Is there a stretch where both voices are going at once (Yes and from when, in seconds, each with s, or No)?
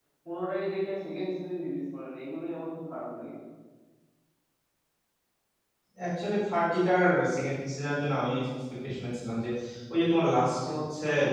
No